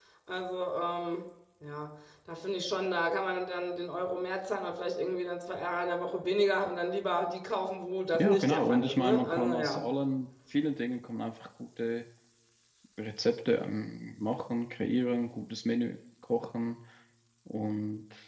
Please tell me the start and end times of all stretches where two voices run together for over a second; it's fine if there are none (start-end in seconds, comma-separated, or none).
8.2-9.8